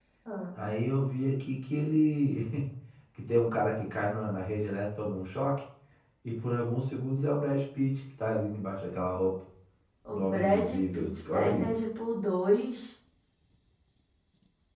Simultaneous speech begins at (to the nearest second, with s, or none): 10 s